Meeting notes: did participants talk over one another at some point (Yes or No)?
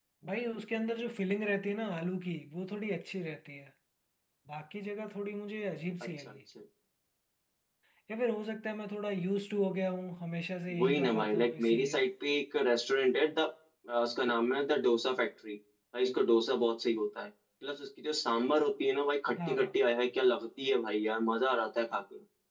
Yes